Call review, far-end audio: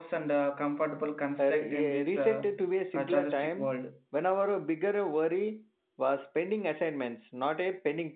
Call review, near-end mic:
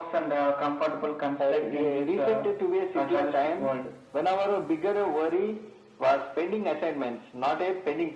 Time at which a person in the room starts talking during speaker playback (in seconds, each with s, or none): none